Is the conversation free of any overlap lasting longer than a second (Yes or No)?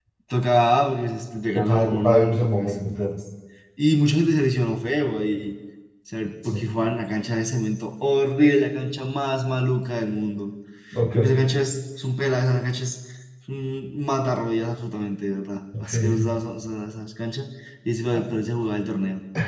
No